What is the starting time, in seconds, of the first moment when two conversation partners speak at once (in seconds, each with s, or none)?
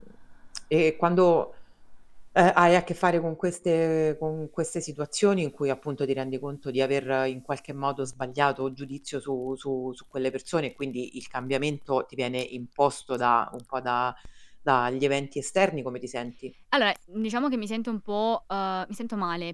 none